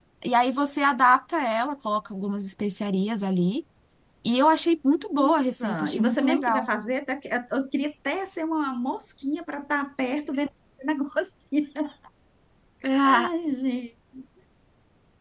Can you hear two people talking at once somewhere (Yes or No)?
Yes